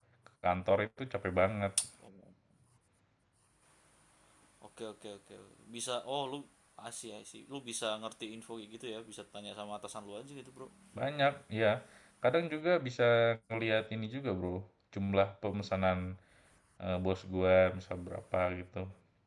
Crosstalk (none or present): none